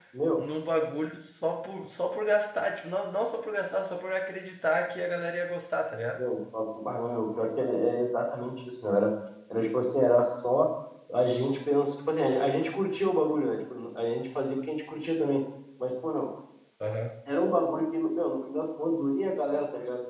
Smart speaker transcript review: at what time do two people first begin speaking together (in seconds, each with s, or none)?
none